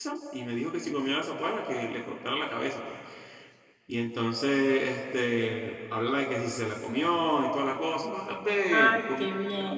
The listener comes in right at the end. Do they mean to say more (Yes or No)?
Yes